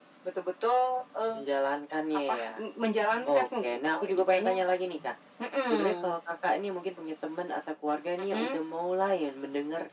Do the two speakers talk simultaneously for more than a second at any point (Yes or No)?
Yes